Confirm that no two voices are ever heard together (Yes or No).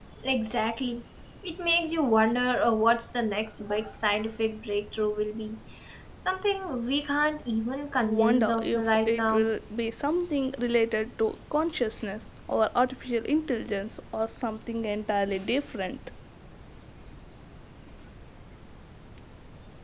No